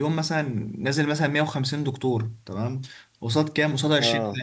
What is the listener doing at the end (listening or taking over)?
listening